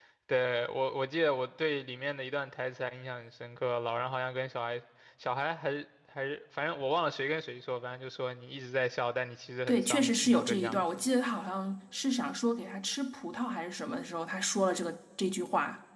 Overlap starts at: 9.7 s

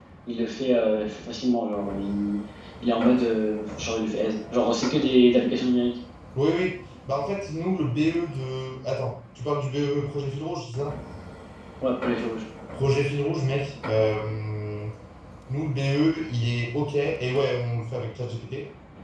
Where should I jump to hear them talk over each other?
none

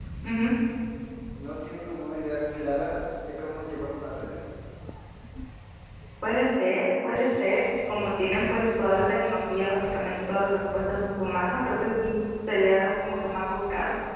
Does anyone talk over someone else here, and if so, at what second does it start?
none

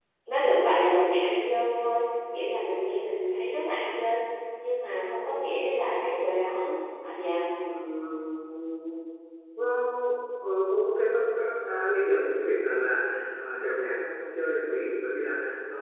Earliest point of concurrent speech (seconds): none

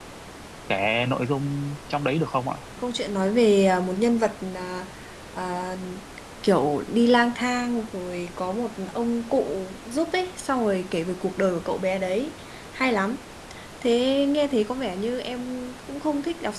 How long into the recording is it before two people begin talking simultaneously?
none

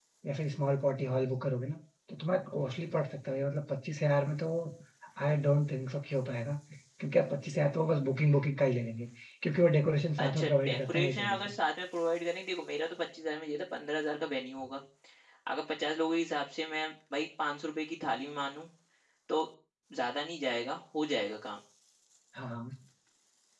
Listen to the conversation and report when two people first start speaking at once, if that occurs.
10.2 s

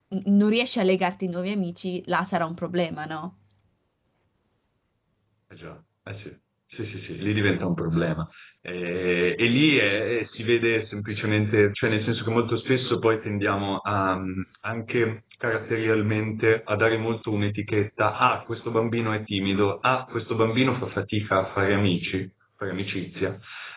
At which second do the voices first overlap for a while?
none

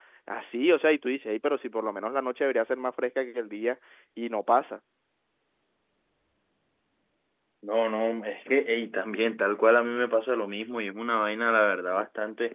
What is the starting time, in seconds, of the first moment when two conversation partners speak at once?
none

